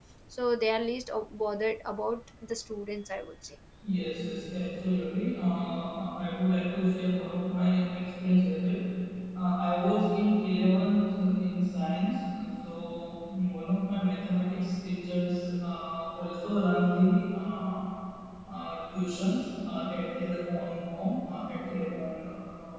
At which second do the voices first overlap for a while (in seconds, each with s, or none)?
none